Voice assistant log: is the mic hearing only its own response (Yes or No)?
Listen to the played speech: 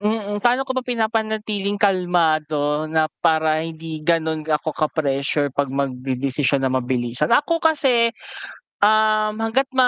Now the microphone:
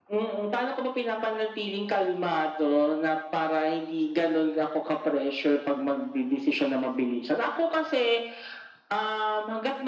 Yes